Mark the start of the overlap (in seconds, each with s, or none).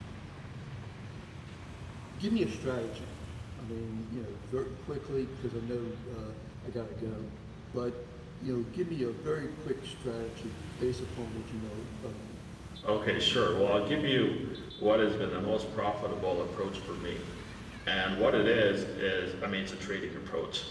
none